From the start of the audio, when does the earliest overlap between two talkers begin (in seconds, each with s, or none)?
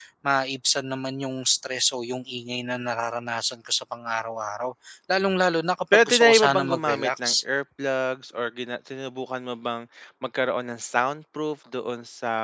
5.9 s